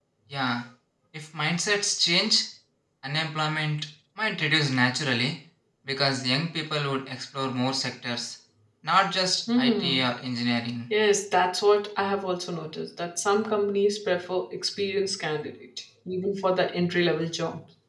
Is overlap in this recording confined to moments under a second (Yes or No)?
Yes